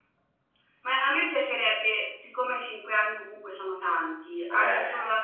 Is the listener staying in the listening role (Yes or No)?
Yes